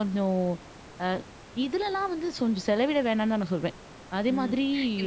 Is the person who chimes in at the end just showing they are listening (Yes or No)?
No